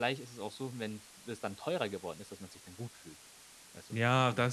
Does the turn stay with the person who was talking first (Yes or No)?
No